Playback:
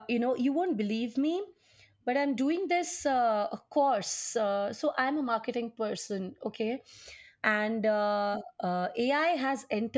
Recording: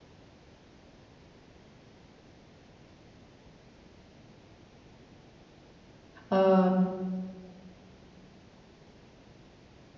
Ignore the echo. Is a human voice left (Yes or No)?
Yes